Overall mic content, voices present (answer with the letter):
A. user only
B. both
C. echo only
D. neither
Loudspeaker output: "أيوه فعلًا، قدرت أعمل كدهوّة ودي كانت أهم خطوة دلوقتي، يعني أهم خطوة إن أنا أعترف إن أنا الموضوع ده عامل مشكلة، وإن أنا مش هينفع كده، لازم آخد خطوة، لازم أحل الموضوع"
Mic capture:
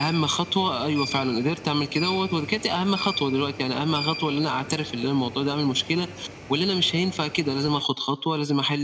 C